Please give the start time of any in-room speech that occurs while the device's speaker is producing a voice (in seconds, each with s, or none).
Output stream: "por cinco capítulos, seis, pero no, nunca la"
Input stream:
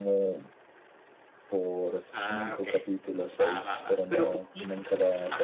2.1 s